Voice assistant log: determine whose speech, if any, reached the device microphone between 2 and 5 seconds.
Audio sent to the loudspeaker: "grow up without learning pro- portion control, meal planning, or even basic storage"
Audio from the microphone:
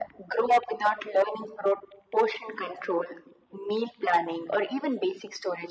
echo only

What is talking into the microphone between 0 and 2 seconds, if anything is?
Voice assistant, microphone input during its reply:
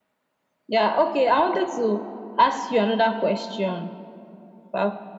echo only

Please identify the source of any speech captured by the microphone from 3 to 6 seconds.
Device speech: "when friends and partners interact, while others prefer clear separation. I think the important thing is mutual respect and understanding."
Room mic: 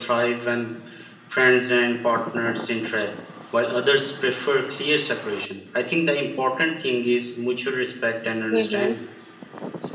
echo only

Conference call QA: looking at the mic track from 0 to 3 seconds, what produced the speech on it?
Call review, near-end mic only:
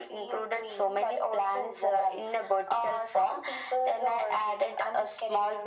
echo only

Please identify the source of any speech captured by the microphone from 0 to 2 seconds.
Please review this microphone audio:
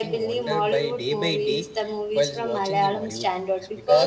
echo only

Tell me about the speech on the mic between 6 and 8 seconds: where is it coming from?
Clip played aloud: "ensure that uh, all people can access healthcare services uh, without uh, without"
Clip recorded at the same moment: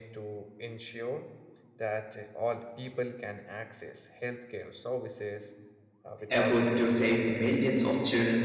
both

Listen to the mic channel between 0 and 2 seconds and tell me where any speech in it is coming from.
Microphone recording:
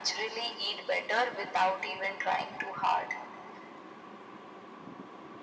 echo only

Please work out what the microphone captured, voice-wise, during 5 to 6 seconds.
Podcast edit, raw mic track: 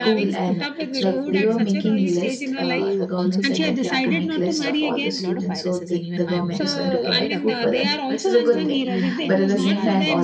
both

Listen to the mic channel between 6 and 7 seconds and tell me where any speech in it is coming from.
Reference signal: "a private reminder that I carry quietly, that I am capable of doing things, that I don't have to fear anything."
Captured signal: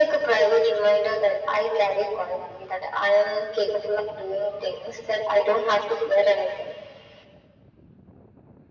echo only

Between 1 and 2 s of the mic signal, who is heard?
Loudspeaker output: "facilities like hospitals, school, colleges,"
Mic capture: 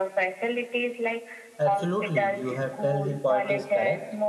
both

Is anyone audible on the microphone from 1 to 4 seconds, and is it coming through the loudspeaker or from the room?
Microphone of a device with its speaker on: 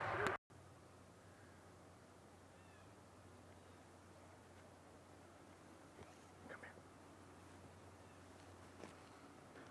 neither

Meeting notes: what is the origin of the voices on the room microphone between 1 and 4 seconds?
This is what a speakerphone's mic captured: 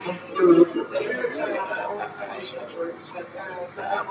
echo only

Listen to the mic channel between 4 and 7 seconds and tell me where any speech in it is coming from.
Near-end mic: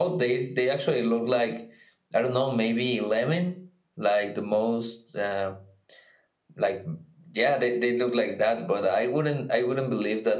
echo only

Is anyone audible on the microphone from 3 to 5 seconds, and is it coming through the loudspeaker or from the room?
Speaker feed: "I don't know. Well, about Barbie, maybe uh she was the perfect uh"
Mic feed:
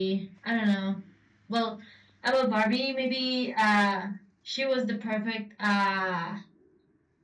echo only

